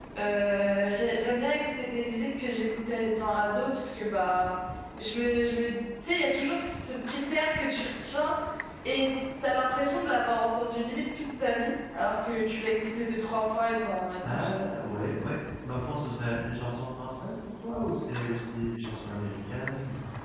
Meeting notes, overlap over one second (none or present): none